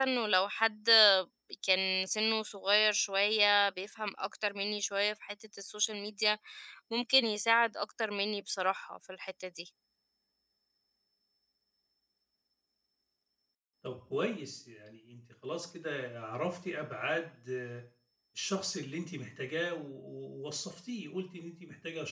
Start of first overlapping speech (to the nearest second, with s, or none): none